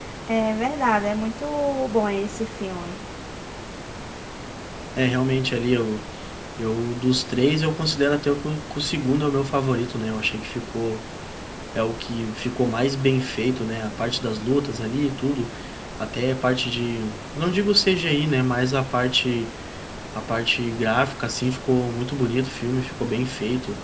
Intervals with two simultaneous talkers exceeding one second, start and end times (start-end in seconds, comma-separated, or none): none